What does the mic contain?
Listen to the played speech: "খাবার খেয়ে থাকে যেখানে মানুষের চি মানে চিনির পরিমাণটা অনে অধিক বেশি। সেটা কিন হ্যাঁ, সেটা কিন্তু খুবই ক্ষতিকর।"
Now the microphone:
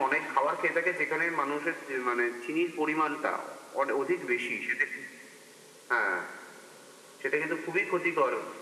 echo only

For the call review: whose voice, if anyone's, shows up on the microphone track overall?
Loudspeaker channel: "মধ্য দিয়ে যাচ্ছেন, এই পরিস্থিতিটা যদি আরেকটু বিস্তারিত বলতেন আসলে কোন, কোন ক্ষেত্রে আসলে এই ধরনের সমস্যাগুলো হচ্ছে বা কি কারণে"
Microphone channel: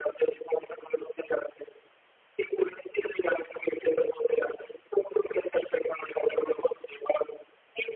echo only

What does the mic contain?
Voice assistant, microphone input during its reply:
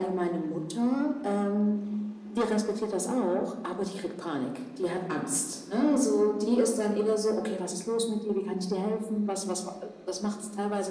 echo only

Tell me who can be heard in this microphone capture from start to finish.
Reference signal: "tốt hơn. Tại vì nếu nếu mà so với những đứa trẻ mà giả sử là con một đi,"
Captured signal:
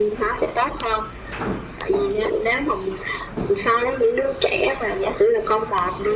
echo only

